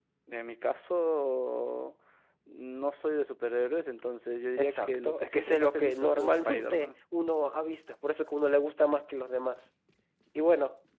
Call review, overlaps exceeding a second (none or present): present